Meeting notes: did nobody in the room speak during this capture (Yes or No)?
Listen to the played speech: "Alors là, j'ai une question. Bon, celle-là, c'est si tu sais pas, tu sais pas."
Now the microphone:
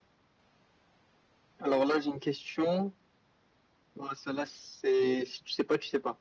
Yes